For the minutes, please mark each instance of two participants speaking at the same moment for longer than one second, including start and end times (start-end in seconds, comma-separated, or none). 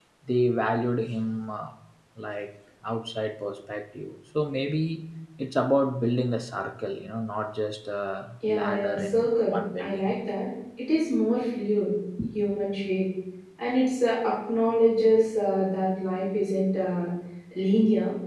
8.5-10.1